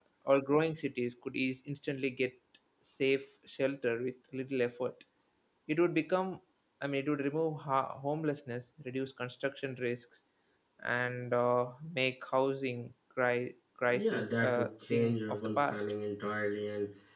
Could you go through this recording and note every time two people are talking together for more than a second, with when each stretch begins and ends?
13.9-15.8

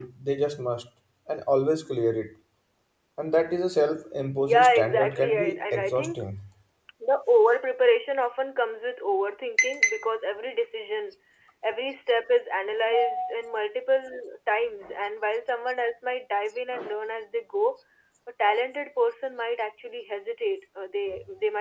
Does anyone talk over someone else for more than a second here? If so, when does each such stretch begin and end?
4.4-6.2

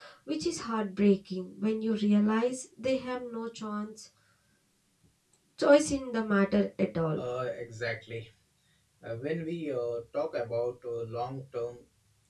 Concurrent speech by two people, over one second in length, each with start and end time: none

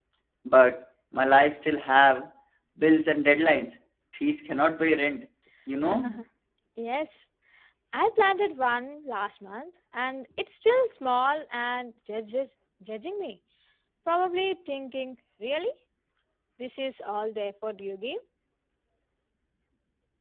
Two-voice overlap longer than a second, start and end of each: none

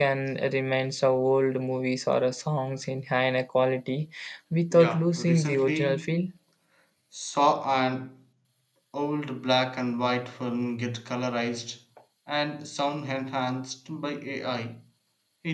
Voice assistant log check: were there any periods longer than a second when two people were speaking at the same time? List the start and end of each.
4.7-6.0

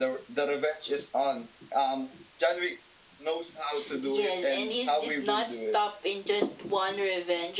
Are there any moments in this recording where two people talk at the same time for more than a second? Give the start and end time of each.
4.0-5.8

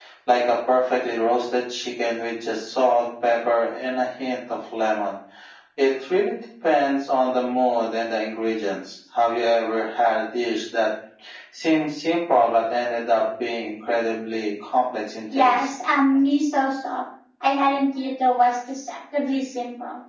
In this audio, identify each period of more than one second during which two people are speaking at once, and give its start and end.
none

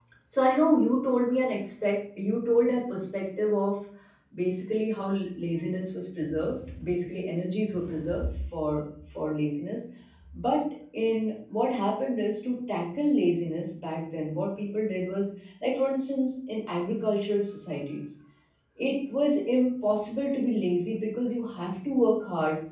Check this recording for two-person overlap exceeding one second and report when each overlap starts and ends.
none

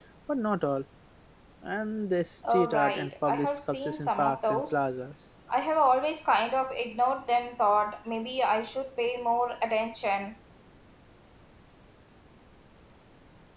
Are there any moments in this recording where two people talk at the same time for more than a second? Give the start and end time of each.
2.5-4.8

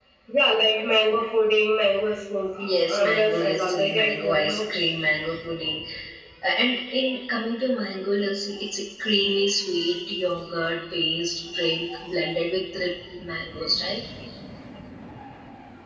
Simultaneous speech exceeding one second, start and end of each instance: 2.6-4.7

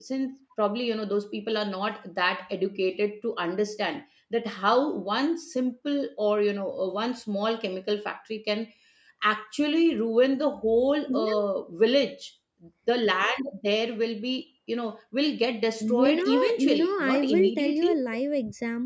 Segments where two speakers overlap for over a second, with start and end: 15.8-17.9

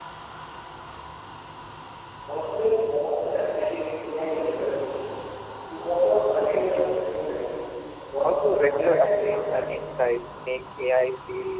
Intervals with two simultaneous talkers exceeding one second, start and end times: 8.2-9.5

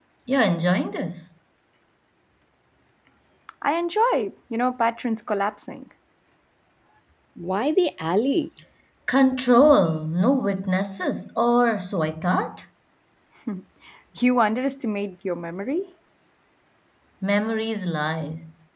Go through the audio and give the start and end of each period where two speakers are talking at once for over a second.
none

